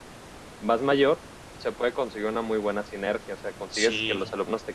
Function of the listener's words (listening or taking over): listening